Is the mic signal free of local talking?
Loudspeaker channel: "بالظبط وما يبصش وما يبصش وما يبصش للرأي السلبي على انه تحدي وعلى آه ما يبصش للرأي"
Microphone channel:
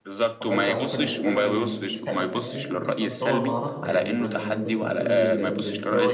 No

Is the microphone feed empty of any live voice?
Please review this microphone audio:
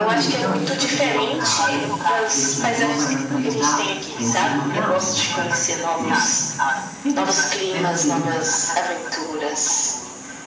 No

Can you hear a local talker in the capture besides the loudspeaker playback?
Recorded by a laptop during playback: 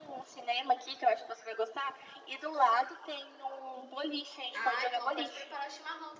Yes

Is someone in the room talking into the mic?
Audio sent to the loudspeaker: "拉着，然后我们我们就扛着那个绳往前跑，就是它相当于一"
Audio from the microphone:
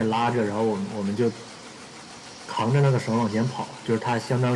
No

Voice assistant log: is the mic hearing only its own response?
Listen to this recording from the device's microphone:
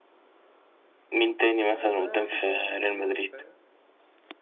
No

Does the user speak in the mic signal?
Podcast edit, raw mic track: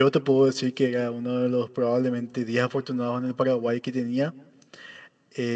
Yes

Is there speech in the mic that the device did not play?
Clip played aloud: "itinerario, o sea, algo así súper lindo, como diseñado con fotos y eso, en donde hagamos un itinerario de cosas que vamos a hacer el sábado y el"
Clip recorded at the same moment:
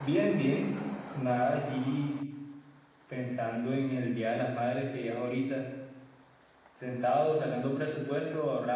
Yes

